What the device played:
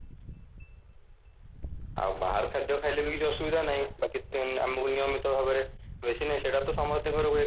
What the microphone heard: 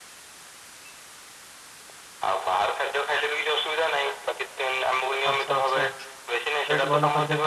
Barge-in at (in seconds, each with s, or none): 5.3 s